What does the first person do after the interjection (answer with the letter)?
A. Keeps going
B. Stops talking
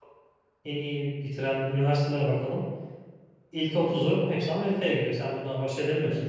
B